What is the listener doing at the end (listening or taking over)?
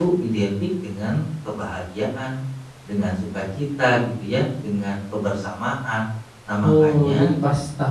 taking over